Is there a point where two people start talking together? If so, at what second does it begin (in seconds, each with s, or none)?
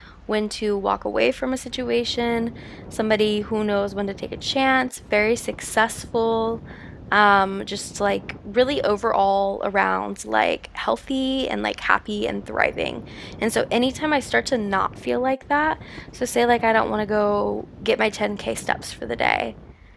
none